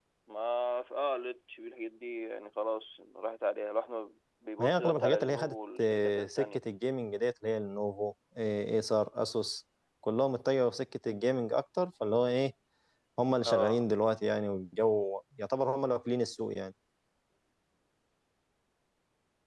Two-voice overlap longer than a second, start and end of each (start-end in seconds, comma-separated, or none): 4.6-6.6